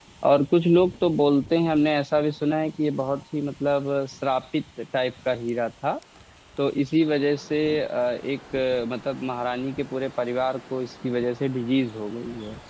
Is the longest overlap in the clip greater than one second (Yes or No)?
No